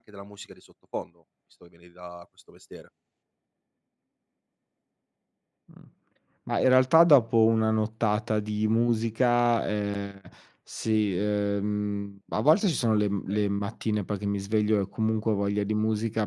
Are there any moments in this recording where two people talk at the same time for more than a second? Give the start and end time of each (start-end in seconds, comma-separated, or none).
none